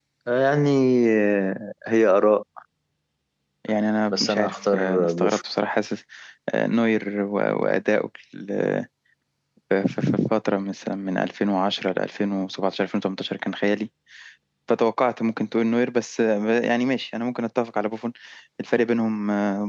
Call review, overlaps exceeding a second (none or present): present